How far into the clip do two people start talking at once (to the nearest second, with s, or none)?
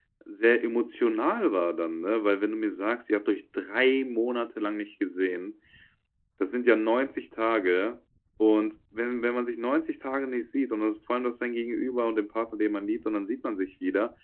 none